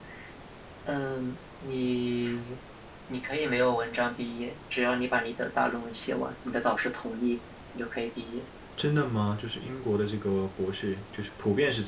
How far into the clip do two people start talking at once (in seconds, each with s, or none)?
none